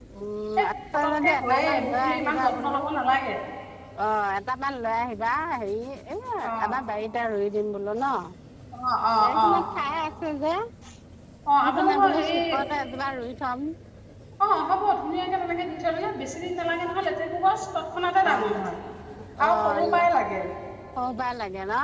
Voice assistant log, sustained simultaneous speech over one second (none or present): present